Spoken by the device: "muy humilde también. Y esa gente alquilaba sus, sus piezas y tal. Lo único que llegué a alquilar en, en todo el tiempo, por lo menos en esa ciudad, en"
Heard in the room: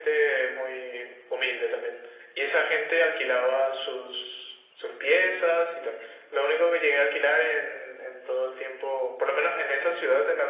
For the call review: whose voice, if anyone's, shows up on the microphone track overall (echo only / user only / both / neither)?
echo only